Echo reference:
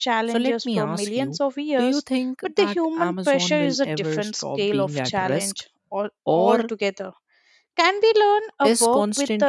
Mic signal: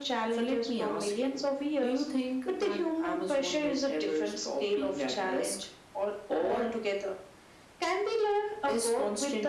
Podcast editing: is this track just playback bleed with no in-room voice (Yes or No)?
Yes